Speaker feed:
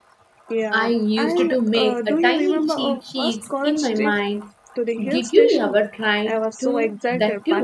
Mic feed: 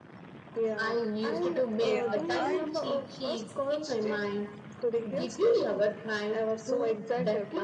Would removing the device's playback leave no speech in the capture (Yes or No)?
No